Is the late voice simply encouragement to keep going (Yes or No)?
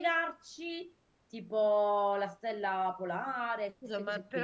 No